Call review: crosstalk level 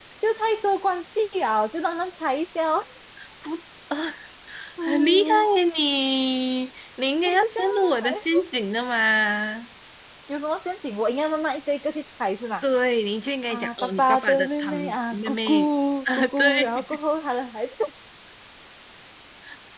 present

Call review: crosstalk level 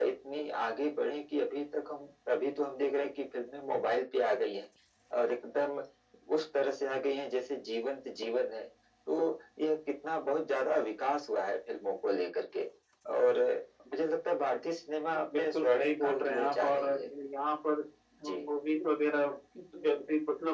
present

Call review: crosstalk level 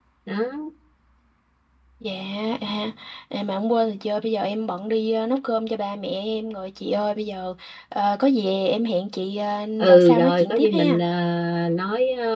present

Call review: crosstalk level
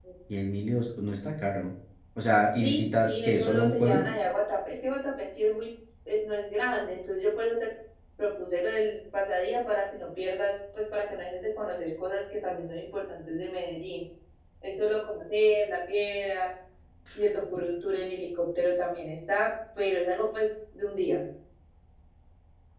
present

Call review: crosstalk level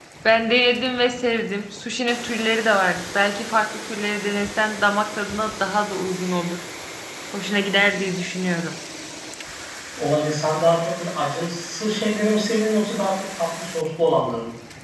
none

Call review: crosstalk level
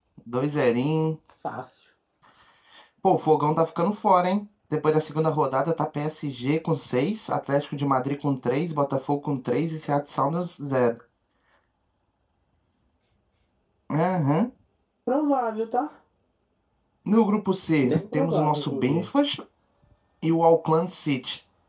present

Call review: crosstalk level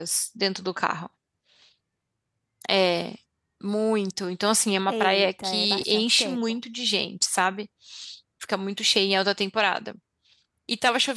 present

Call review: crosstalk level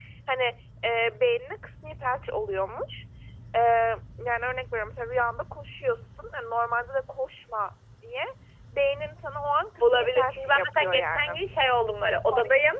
present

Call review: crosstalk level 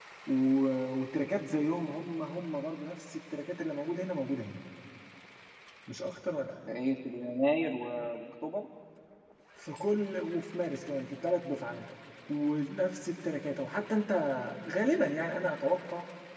none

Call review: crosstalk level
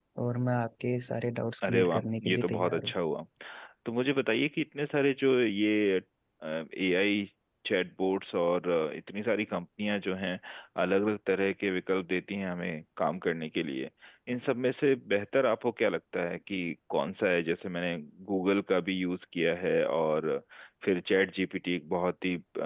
present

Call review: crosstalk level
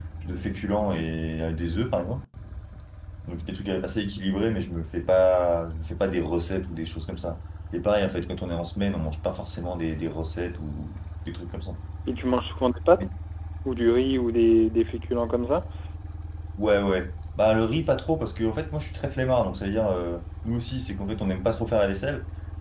none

